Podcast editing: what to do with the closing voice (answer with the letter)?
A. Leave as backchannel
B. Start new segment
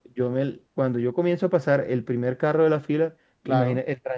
A